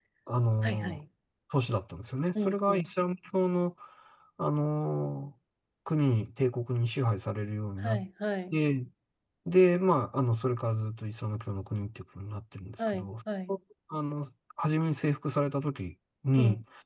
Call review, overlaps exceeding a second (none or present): none